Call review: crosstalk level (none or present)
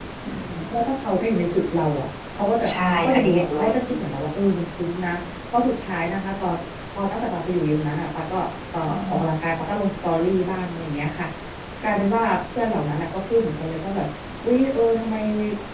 present